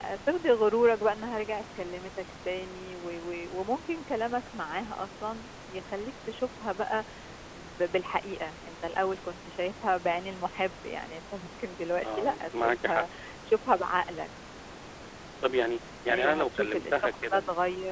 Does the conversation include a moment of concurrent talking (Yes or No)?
Yes